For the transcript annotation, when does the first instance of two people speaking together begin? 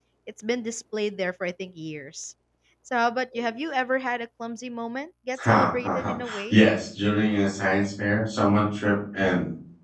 5.3 s

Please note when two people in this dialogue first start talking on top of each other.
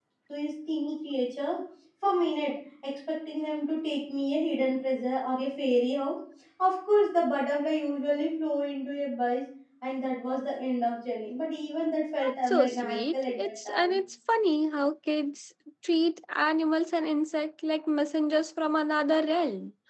12.2 s

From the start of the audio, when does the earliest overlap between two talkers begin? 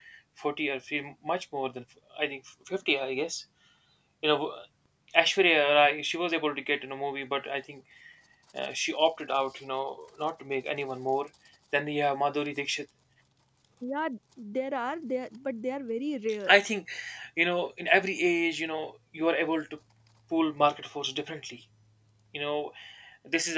none

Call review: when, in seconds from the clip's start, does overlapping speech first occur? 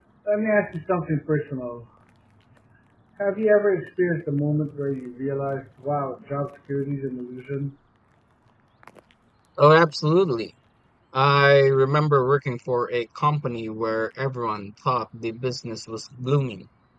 none

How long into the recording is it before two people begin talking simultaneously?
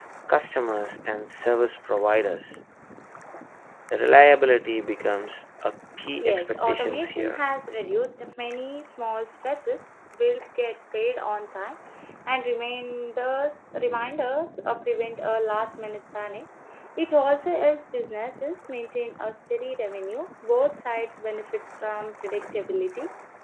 6.2 s

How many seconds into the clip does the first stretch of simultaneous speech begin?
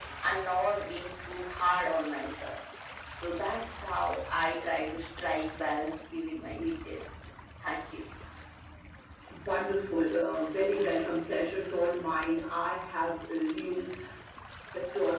none

